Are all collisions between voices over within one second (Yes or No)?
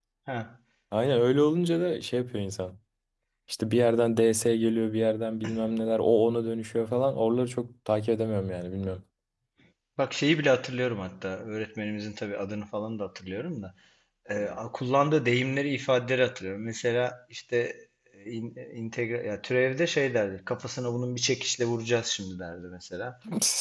Yes